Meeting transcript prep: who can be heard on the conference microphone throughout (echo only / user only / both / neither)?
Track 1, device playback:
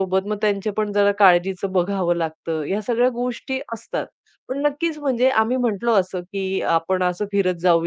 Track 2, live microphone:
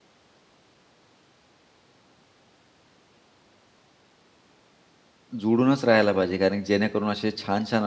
user only